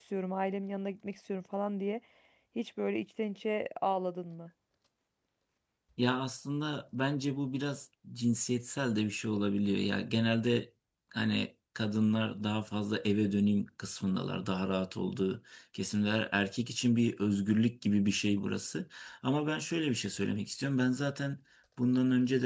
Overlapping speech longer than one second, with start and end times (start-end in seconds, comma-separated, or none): none